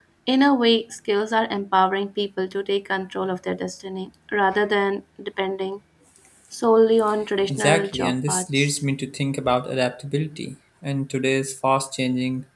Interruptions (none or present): present